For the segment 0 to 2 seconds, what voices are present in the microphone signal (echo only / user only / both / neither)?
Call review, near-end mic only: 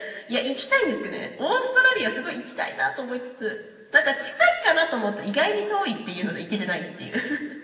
echo only